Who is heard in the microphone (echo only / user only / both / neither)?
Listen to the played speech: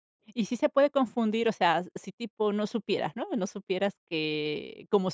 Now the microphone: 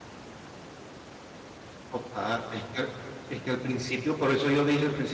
user only